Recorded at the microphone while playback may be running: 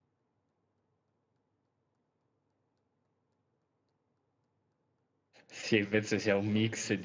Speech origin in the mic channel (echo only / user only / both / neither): user only